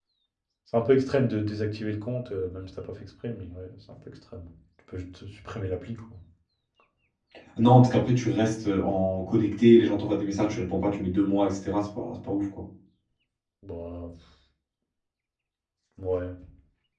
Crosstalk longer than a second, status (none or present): none